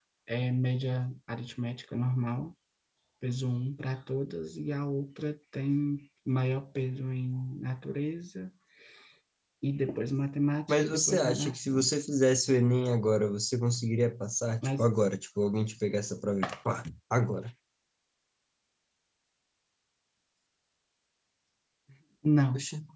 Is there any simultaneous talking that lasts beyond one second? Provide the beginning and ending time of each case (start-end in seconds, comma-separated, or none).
10.7-11.9